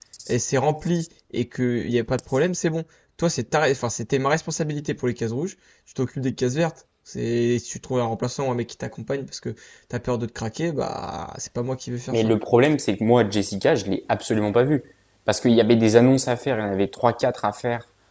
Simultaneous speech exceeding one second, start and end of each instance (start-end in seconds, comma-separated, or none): none